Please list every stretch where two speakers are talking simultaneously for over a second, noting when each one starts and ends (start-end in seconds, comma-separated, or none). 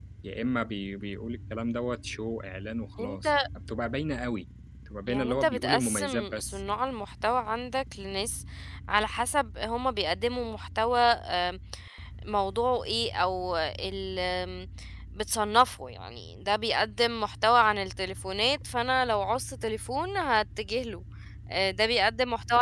5.1-6.6